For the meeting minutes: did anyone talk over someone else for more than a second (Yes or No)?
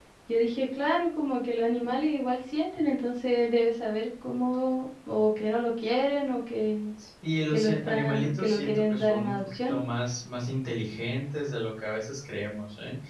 Yes